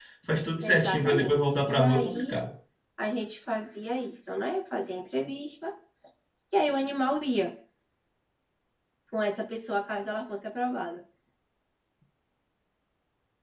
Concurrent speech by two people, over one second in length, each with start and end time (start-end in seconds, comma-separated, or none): 0.6-2.4